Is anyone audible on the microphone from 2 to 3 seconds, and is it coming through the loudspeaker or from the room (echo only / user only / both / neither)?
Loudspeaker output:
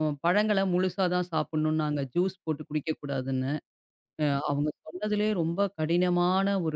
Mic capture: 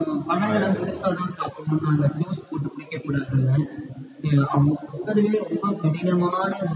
echo only